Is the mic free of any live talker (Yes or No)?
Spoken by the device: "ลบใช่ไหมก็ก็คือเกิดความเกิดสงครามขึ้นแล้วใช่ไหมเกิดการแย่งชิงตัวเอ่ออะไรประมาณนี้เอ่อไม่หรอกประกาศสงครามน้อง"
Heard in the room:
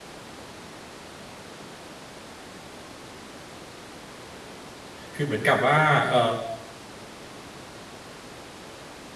No